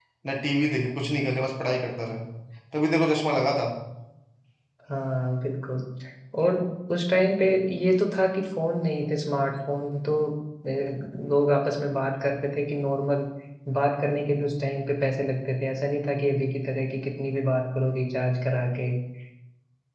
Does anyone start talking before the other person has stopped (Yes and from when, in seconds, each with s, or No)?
No